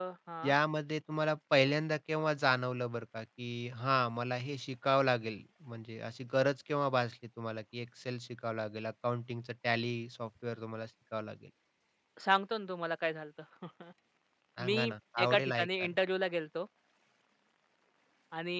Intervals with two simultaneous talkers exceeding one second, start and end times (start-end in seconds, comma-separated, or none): 14.7-15.9